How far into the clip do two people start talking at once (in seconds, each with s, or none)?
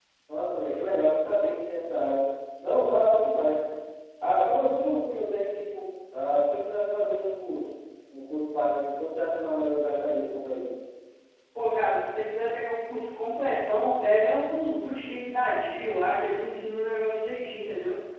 none